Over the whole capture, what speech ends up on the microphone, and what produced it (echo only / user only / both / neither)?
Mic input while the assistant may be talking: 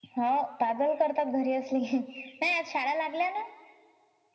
echo only